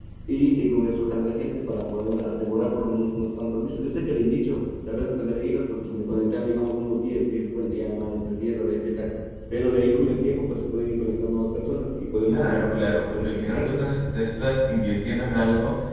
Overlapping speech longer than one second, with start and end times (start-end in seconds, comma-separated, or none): 12.2-13.8